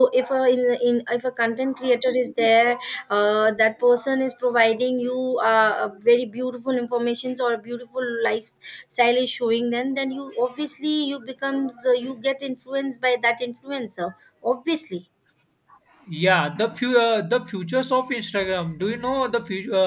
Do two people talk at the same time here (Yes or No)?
No